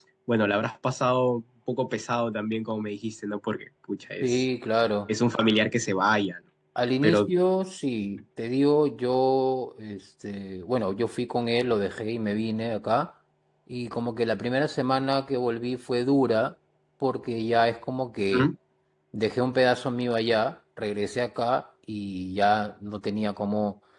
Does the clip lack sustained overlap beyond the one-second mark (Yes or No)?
Yes